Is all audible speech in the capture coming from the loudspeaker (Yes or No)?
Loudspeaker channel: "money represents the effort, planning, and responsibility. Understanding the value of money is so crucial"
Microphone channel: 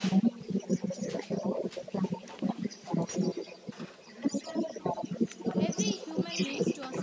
No